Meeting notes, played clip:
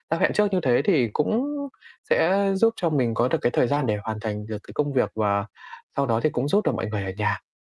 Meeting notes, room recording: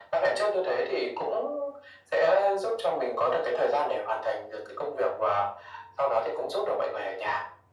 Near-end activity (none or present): none